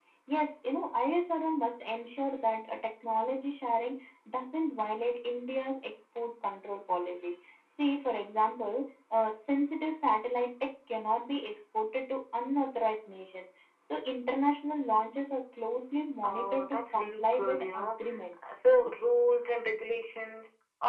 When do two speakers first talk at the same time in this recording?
16.2 s

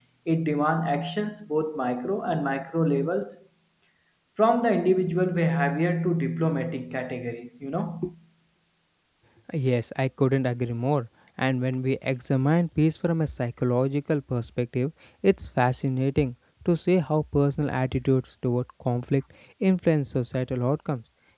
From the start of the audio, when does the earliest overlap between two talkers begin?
none

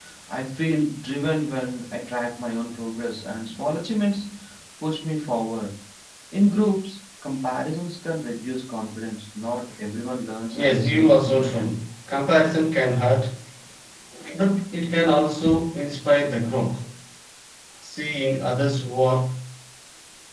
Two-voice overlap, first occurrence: 10.5 s

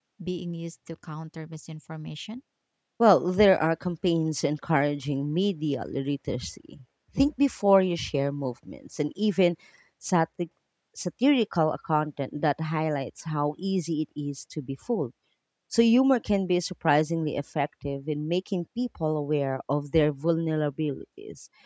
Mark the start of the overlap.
none

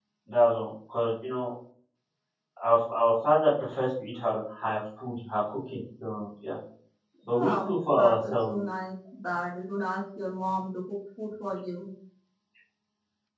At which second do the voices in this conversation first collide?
7.3 s

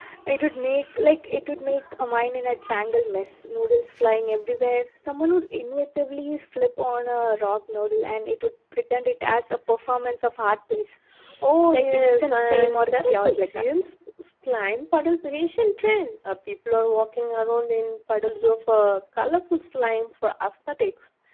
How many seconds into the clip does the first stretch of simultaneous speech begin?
11.7 s

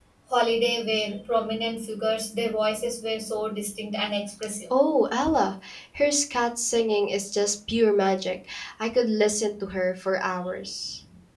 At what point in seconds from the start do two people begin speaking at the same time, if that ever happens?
none

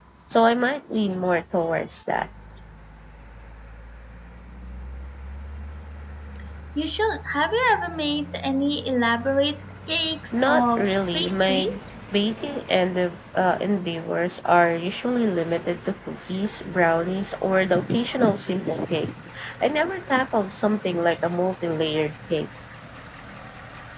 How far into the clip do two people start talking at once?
10.3 s

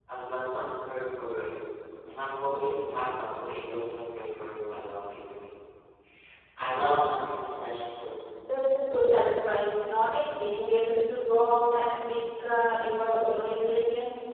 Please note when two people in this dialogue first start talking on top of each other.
none

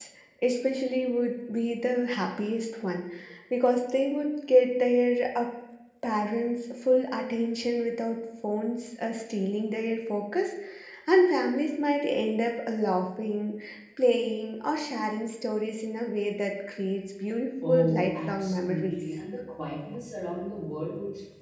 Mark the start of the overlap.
17.6 s

